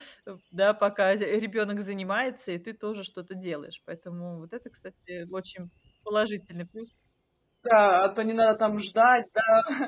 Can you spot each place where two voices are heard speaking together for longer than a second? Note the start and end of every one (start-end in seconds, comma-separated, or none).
none